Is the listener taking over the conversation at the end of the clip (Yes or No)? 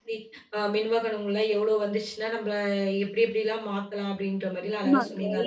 Yes